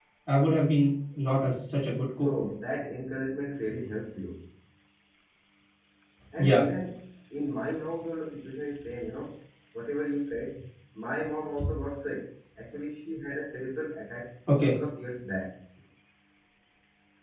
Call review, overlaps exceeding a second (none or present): none